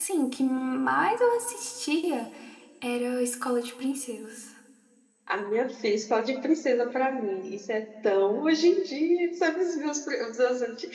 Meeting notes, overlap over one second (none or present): none